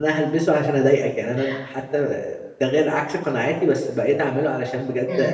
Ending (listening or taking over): taking over